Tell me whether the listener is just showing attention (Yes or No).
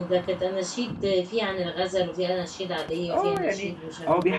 No